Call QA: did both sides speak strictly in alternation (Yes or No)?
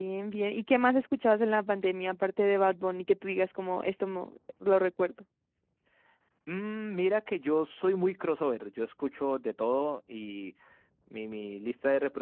Yes